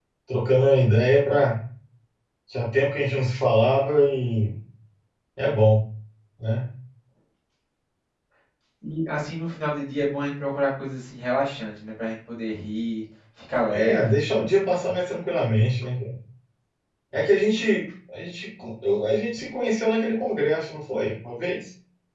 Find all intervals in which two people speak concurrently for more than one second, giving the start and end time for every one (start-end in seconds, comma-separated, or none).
none